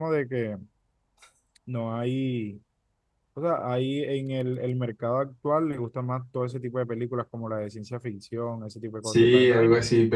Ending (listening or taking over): taking over